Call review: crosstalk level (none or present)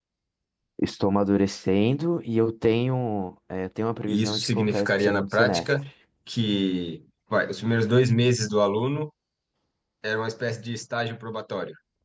present